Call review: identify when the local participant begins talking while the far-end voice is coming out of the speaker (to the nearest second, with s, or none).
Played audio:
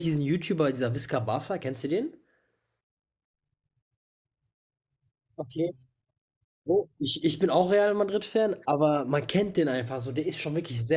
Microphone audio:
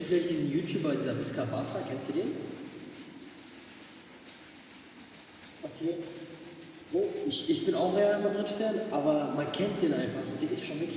none